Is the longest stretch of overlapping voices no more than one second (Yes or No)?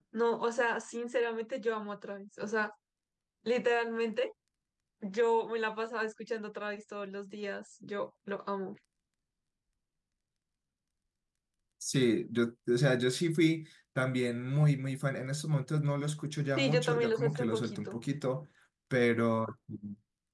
No